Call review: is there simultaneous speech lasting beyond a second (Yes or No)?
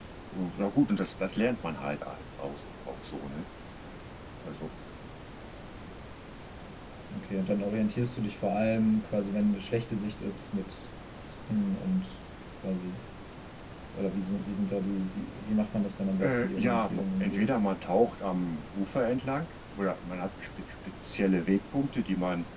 Yes